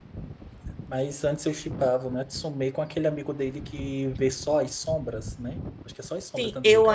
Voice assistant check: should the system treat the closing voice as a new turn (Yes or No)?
Yes